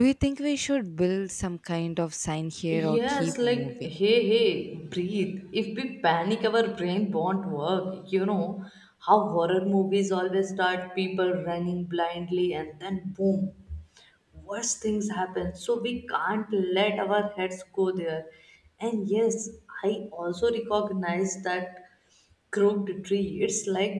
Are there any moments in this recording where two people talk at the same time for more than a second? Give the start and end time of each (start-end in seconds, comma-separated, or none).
2.7-3.9